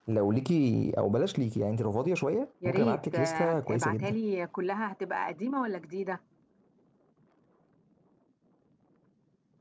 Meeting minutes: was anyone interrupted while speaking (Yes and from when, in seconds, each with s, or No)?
Yes, from 2.6 s